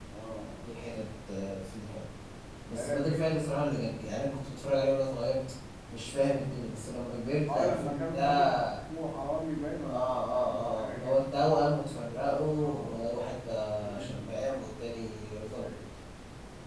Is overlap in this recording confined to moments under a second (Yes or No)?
No